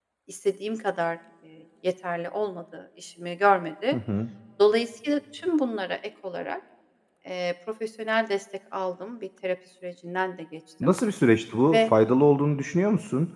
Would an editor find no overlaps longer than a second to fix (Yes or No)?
Yes